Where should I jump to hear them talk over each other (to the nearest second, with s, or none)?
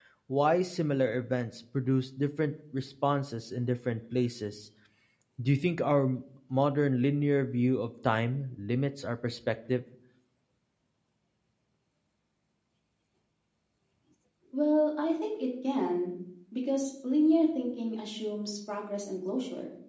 none